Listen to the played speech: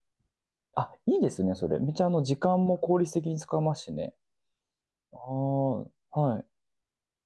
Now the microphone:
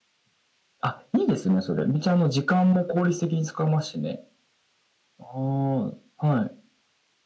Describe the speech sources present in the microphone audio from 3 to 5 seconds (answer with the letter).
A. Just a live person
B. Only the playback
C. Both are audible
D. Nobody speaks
B